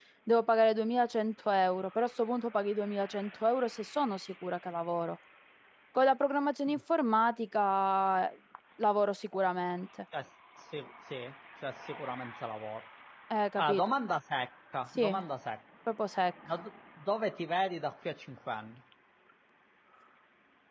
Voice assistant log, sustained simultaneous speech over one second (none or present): none